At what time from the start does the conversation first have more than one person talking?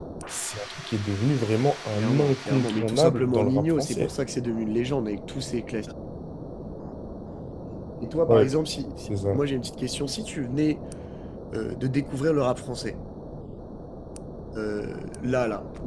1.9 s

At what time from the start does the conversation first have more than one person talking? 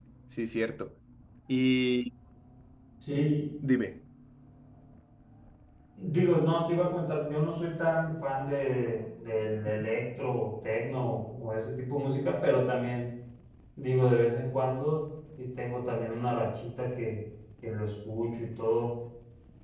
none

